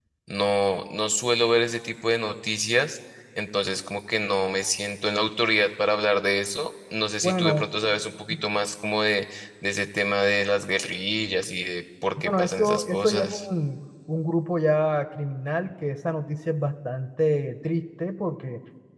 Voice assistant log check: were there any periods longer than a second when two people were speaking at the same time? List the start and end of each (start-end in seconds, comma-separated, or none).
12.2-13.4